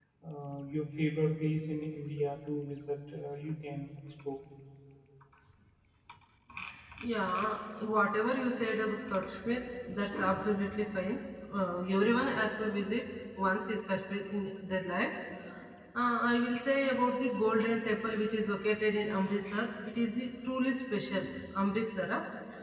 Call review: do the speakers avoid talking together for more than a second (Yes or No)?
Yes